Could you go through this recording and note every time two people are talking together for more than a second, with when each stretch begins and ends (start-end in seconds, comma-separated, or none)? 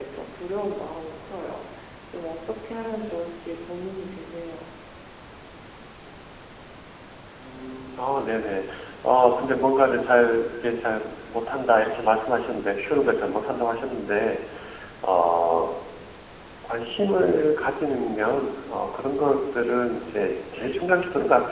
none